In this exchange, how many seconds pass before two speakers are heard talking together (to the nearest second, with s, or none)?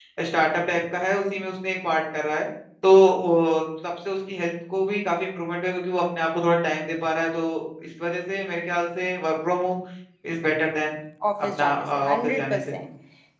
12 s